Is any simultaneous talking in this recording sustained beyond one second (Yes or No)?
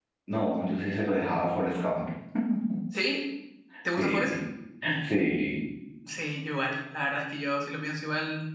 No